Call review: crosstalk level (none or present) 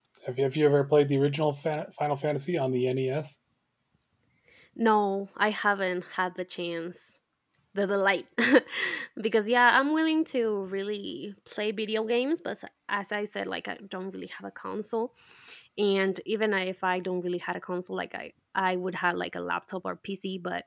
none